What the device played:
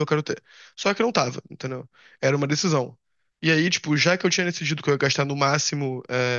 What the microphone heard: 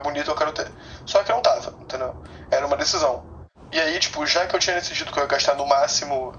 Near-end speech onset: none

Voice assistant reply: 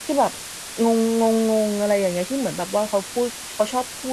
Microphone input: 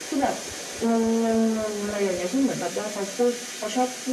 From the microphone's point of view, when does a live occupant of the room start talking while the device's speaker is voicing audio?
none

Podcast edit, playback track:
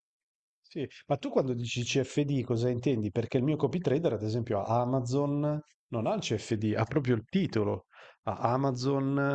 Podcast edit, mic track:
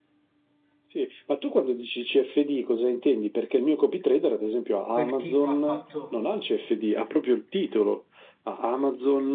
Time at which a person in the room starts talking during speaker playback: 4.9 s

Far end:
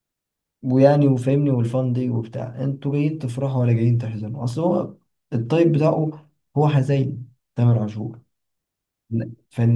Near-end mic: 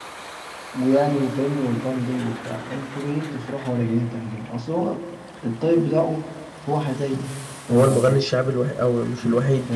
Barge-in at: 7.7 s

